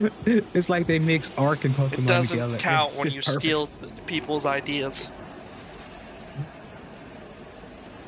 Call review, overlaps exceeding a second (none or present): present